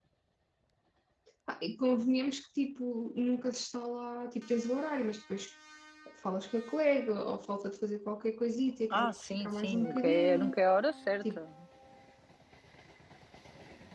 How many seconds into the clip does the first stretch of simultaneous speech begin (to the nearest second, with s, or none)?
9 s